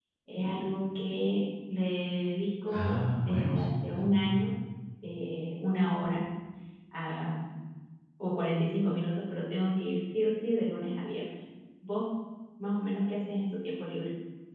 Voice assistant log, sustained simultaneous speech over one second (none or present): present